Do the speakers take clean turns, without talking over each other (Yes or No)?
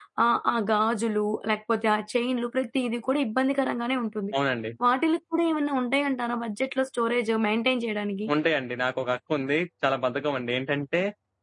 Yes